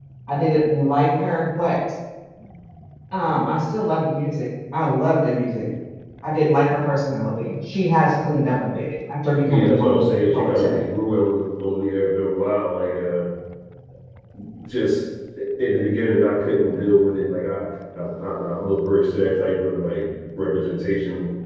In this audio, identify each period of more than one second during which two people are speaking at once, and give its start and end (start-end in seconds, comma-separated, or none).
9.4-10.8